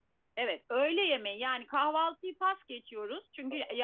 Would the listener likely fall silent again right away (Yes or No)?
Yes